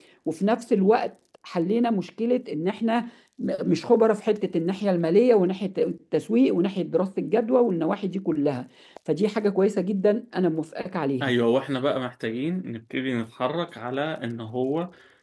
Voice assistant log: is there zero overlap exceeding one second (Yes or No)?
Yes